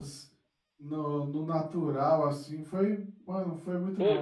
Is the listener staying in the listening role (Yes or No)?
No